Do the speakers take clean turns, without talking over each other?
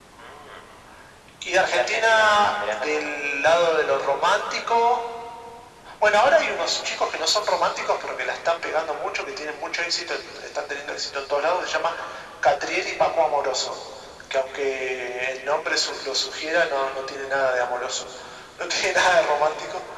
No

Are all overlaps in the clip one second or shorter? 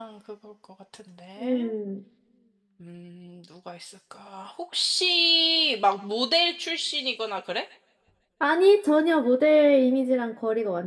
Yes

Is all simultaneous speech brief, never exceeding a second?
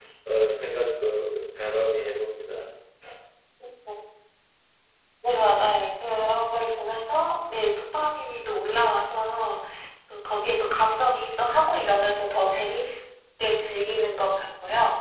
Yes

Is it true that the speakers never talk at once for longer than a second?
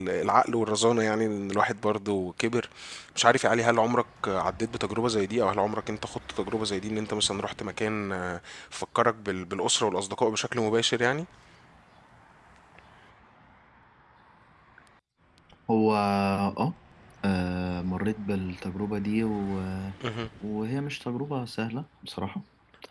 Yes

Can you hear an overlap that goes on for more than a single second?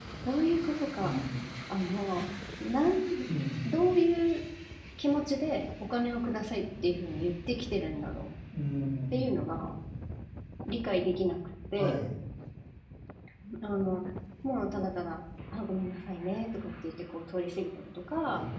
No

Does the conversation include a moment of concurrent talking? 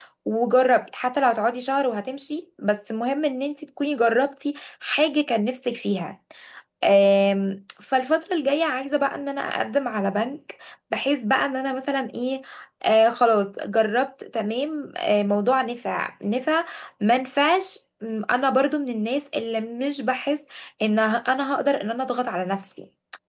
No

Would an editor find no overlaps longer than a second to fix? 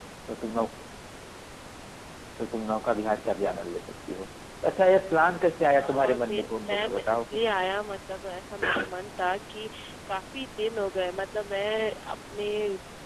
No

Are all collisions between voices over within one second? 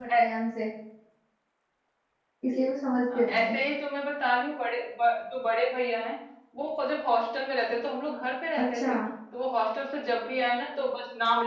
Yes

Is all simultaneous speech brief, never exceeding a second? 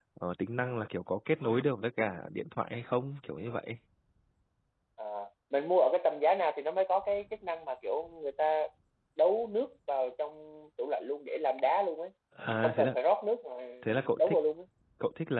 Yes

